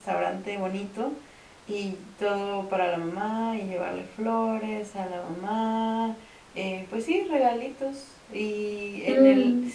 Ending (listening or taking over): listening